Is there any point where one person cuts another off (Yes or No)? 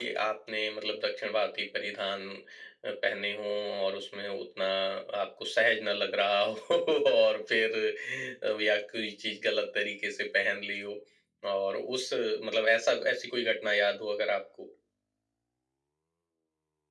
No